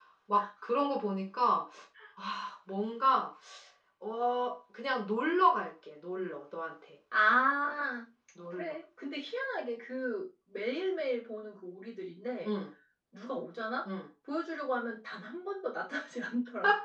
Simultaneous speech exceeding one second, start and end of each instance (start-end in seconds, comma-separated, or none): none